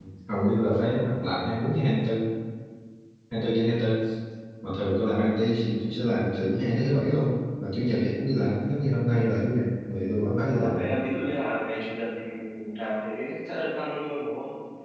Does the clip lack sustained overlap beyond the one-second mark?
Yes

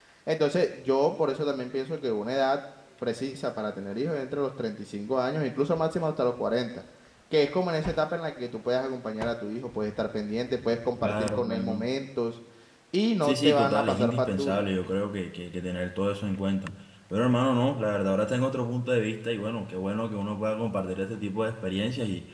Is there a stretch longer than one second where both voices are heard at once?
Yes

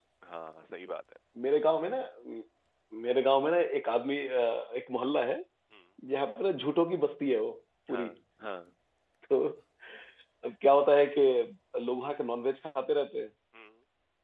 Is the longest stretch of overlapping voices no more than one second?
Yes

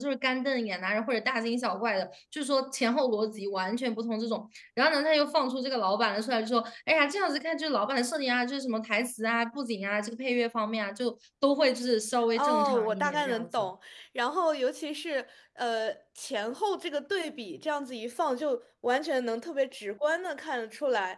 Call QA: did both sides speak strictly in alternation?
No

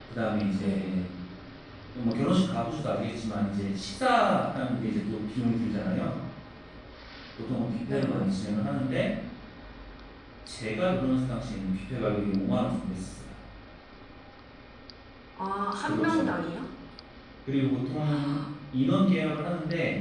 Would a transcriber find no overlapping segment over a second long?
Yes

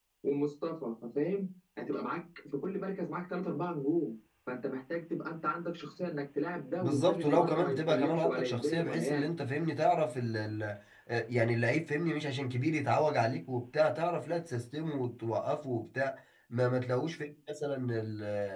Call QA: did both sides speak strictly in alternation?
No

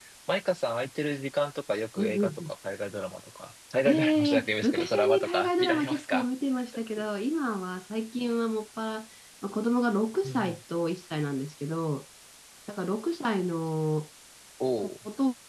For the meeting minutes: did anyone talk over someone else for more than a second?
Yes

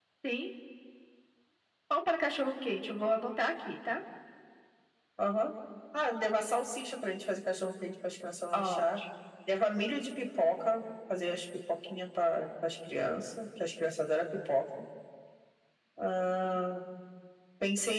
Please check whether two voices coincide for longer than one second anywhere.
No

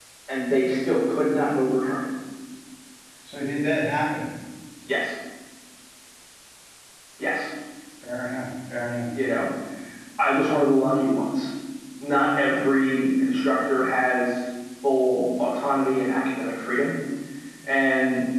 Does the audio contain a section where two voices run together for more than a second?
No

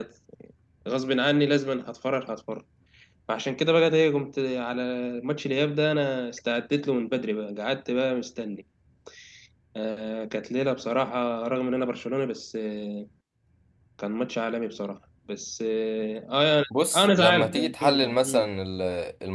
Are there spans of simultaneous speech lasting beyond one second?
Yes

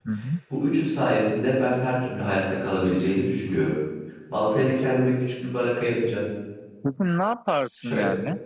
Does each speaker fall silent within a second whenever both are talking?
Yes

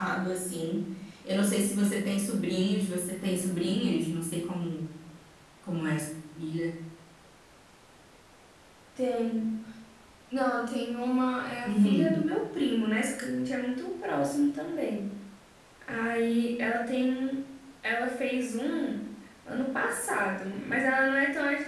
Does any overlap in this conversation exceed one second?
No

